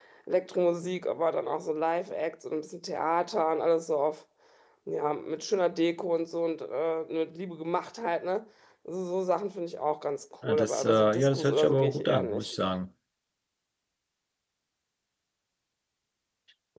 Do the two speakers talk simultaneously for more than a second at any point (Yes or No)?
Yes